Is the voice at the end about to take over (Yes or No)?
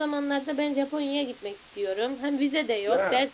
No